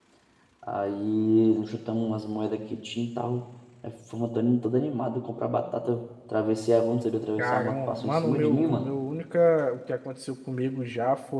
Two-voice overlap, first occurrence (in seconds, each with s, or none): 7.4 s